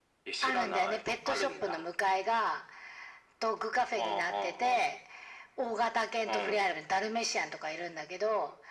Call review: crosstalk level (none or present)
present